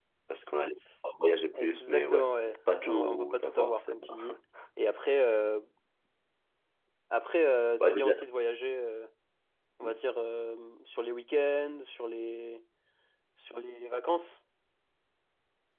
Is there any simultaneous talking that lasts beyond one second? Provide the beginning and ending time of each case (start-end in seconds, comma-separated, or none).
1.5-4.4